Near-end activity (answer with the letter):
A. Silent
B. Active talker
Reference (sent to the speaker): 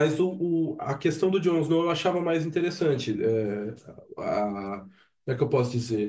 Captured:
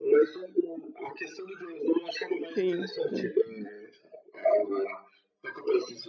B